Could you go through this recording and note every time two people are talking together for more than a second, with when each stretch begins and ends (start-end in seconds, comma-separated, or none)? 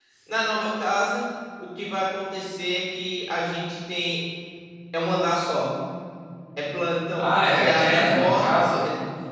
7.2-8.7